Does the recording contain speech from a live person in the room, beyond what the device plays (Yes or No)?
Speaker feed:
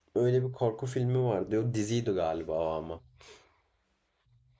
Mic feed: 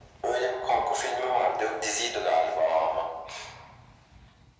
No